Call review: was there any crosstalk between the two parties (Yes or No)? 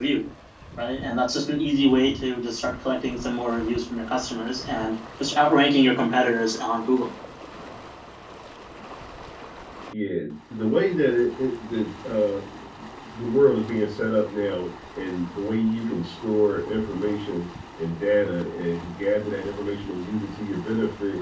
No